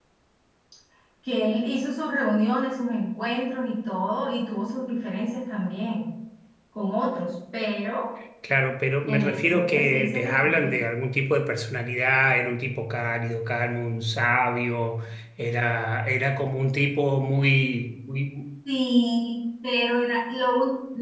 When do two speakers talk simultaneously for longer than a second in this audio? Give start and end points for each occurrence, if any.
9.1-10.8

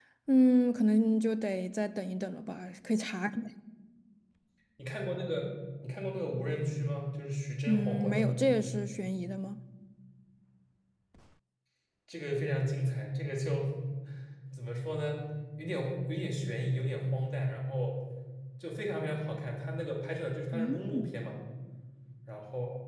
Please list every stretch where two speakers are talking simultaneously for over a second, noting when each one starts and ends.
7.7-8.9

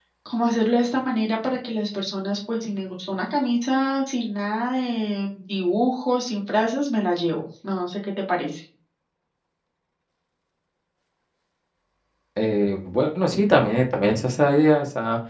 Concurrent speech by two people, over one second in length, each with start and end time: none

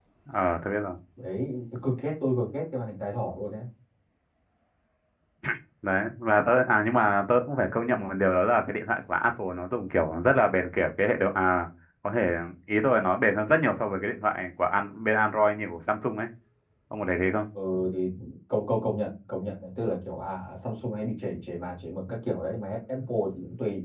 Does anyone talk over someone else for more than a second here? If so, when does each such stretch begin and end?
none

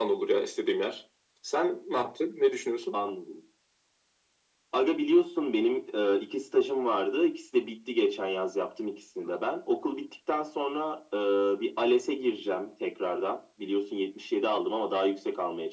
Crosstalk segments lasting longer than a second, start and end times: none

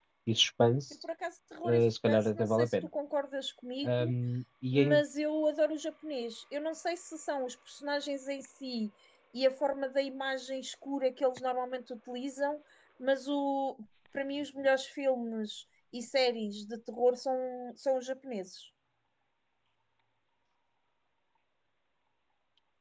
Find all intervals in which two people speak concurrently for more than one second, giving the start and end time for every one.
1.6-2.9

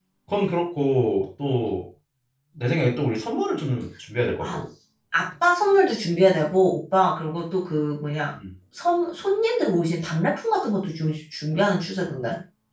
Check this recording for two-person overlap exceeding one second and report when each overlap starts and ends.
none

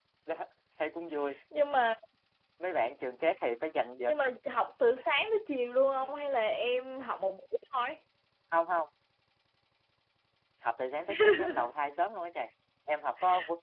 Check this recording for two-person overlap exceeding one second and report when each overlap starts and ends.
none

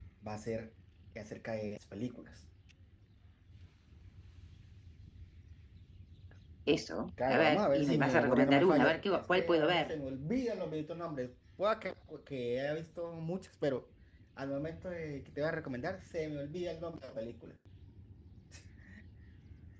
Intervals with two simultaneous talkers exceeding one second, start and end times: 7.3-9.9

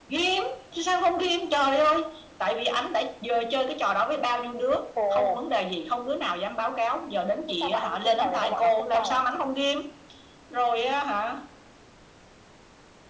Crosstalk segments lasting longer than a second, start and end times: 7.6-9.4

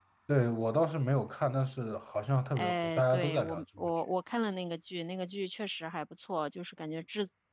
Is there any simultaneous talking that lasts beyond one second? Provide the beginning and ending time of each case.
2.6-3.9

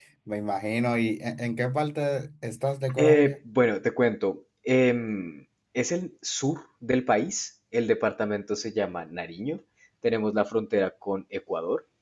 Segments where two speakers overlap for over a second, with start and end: none

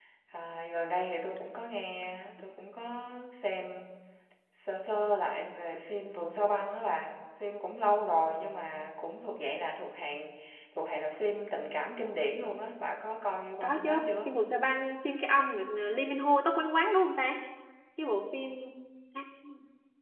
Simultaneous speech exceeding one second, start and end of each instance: none

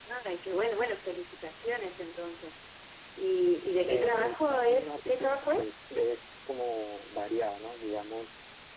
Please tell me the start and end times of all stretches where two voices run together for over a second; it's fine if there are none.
3.9-5.6

